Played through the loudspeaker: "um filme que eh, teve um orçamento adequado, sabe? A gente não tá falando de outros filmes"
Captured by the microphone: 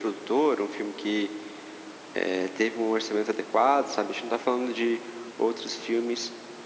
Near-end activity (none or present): none